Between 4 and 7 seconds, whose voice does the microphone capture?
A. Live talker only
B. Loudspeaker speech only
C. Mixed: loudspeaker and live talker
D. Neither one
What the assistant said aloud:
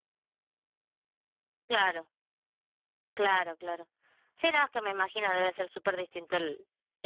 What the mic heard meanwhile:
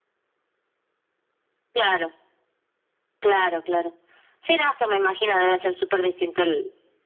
B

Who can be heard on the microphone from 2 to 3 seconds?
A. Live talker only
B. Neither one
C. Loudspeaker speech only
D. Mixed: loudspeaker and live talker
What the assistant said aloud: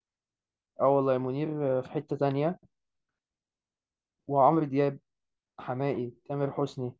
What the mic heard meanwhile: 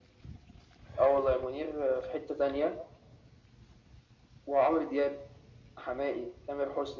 C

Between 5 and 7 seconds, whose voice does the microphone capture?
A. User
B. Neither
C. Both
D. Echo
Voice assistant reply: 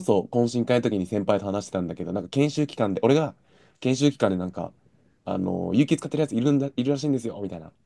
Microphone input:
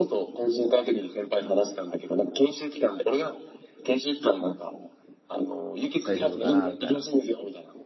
C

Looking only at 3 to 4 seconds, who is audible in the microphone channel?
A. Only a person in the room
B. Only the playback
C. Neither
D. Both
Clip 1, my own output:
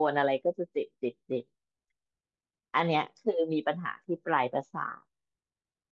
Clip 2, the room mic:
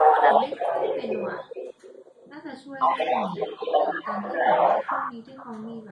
D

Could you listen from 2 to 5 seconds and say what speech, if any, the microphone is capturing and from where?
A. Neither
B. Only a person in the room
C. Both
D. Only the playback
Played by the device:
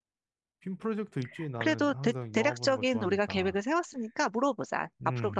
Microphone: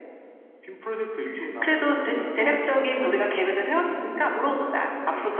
D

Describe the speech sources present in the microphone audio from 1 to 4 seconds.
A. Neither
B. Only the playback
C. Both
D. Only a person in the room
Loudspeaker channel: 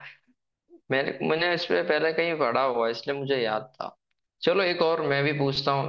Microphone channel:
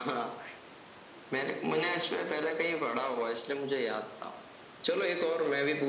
B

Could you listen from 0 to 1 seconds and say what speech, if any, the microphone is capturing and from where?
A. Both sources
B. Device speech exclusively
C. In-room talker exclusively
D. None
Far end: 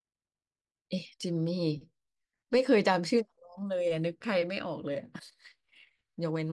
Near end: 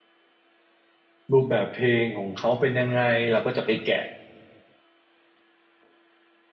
D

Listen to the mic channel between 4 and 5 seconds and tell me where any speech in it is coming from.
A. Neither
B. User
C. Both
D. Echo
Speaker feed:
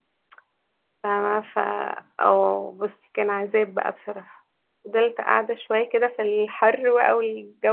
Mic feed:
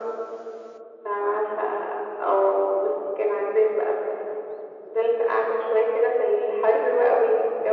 D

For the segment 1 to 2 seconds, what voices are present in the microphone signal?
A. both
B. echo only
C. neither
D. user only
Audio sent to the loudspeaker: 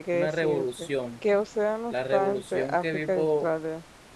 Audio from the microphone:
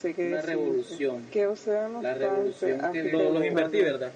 B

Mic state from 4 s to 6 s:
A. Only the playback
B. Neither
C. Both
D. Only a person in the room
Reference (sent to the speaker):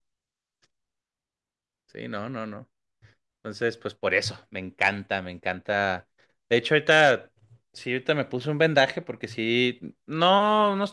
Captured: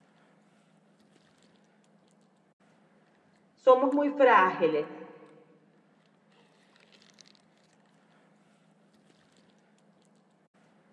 D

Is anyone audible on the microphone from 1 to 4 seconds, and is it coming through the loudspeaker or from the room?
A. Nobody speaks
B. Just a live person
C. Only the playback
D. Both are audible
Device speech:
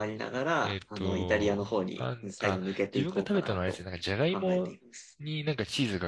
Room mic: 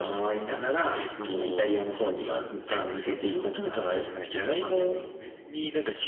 C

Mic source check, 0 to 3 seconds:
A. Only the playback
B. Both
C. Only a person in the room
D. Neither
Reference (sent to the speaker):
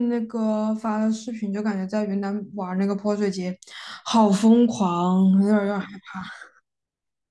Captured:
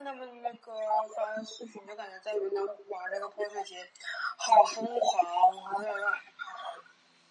A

